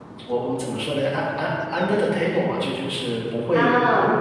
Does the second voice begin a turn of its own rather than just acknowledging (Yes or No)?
Yes